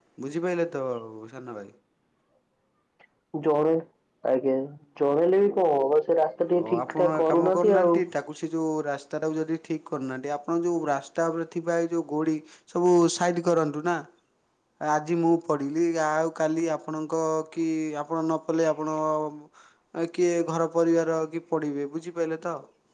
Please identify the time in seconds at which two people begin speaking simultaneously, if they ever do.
6.6 s

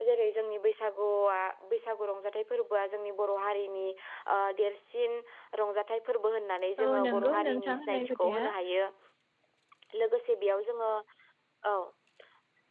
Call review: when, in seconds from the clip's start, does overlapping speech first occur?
6.8 s

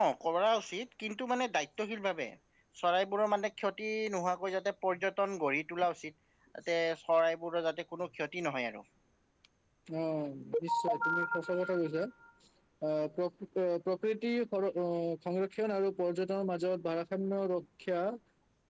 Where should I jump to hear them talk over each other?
none

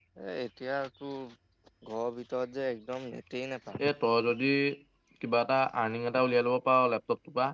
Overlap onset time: none

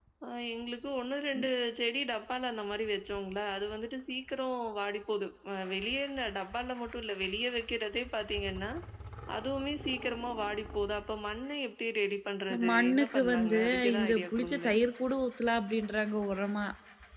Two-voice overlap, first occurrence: 12.5 s

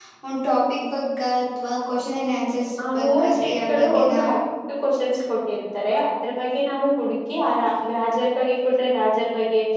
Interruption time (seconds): 3.0 s

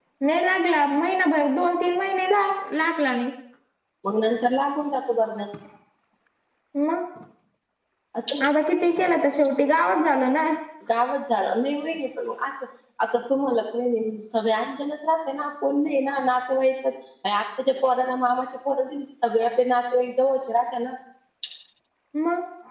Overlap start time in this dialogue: none

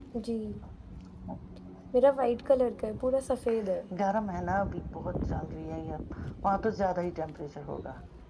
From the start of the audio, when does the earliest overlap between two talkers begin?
none

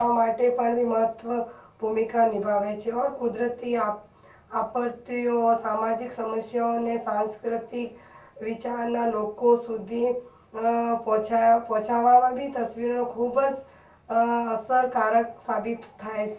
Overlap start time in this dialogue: none

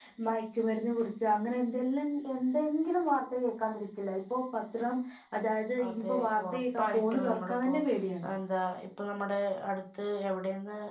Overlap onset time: 5.9 s

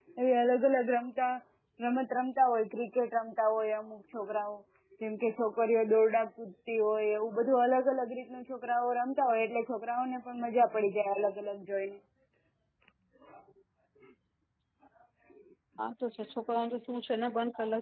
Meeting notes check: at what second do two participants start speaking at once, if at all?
none

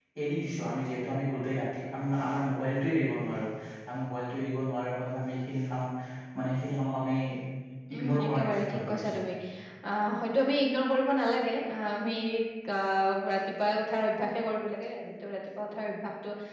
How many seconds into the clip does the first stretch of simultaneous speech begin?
8.0 s

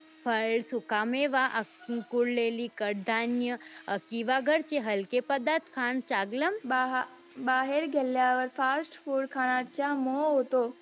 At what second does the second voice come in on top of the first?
none

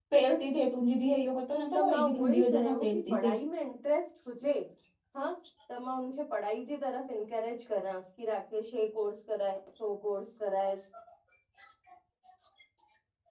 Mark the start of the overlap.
1.7 s

